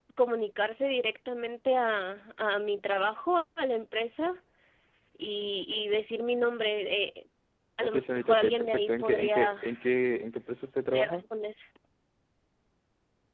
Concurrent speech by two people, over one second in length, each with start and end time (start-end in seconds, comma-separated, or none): 7.8-9.5